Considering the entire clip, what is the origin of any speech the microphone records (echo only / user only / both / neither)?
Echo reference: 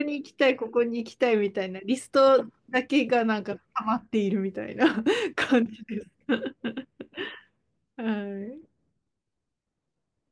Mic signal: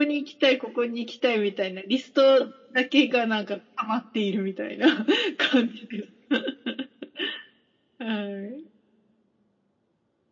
echo only